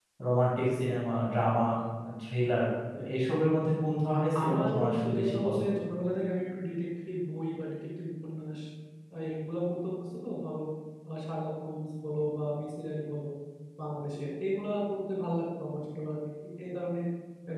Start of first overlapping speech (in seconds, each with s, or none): 4.1 s